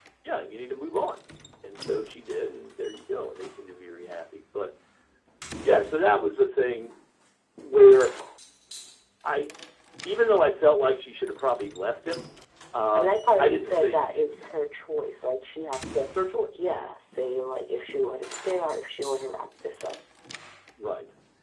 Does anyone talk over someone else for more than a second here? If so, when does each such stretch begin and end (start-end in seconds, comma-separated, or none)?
13.0-14.3